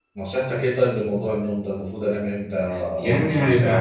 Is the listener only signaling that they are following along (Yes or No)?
No